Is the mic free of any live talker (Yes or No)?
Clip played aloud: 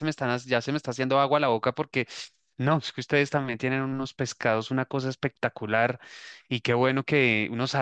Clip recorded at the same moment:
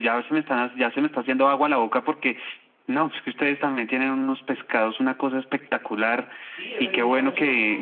No